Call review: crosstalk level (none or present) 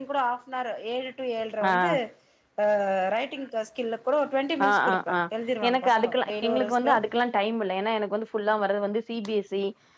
present